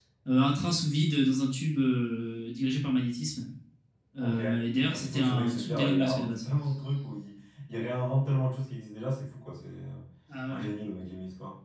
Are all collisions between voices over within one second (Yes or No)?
No